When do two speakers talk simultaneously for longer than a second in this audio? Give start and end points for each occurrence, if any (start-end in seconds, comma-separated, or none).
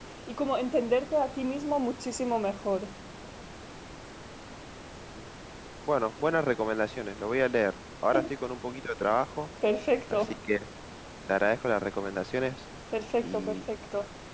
none